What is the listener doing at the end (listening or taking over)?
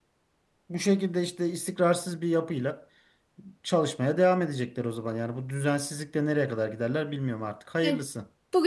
taking over